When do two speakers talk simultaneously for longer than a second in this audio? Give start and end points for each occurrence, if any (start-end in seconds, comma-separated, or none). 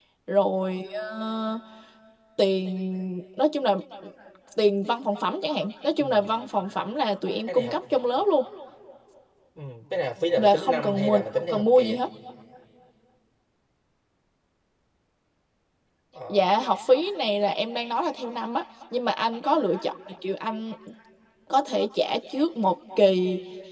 10.4-12.0